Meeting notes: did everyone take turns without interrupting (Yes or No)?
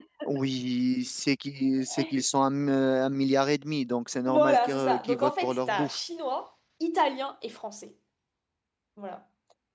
No